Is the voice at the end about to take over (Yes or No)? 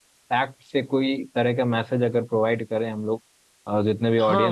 Yes